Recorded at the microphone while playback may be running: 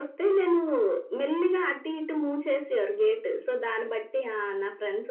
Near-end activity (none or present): none